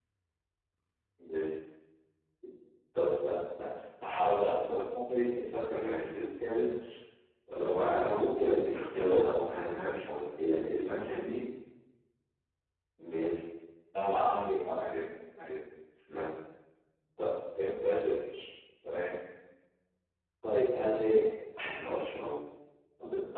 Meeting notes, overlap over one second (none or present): none